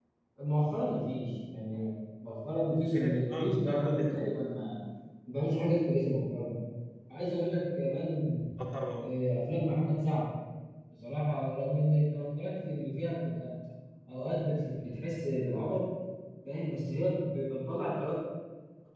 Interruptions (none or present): present